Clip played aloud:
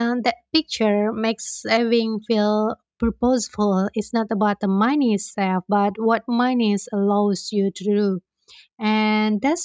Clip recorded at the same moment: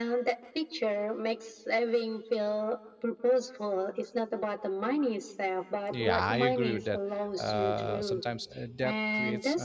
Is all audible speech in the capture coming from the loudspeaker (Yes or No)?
No